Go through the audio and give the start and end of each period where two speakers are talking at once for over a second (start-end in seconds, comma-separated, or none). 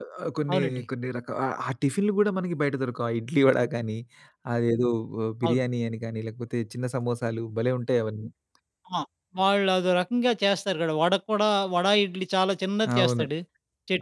none